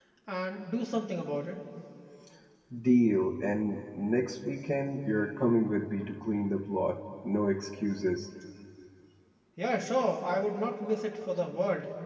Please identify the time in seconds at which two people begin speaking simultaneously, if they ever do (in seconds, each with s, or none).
none